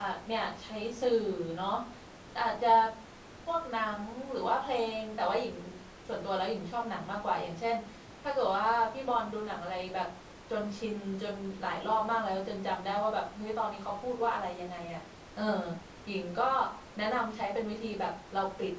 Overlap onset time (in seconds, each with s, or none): none